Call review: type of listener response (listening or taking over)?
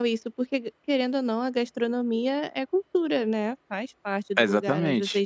taking over